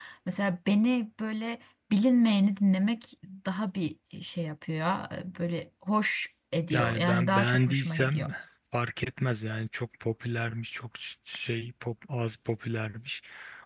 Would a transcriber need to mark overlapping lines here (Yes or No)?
Yes